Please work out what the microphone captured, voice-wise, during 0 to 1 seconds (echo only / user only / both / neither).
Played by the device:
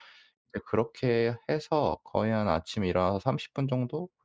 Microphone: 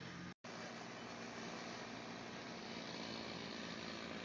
neither